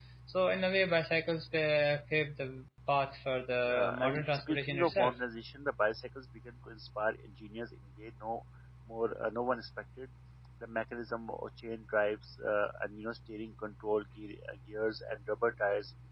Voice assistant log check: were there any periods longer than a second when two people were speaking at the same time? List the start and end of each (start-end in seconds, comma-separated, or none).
3.6-5.1